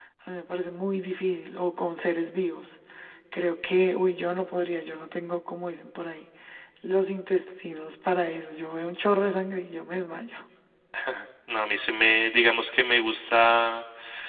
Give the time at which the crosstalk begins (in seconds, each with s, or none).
none